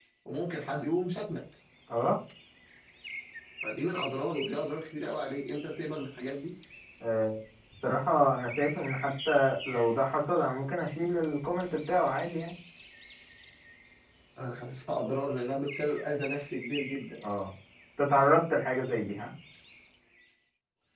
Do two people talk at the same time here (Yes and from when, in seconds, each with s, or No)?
No